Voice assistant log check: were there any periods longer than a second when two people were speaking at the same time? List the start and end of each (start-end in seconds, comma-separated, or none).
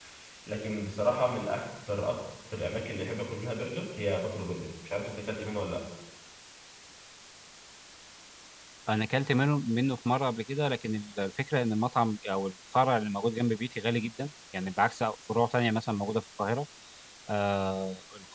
none